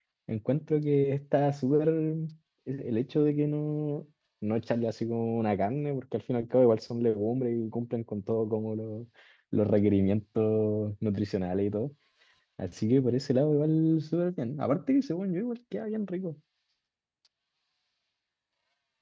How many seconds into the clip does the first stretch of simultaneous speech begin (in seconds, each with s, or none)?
none